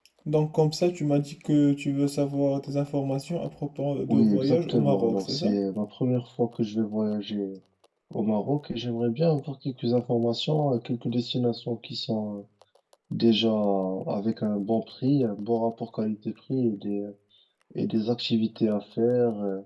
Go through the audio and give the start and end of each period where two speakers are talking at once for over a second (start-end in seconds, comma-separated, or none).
4.1-5.6